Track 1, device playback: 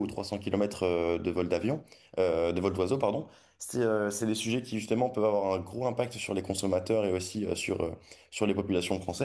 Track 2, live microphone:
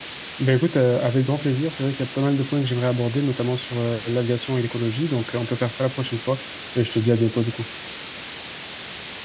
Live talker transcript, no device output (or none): Ben écoute, euh, avec grand plaisir. C'est vrai qu'il y a pas mal de points que j'aimerais aborder, notamment sur euh, l'aviation et l'écologie. Donc, euh, on peut faire ça la prochaine fois. Et je te dis à bientôt, du coup.